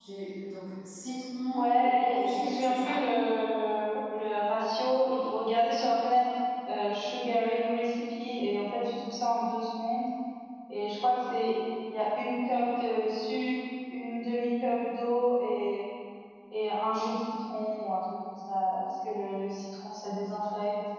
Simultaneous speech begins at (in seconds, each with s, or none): 1.6 s